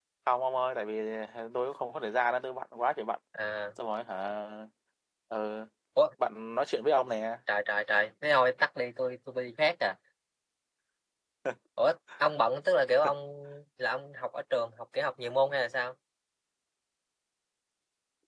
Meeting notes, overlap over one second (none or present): none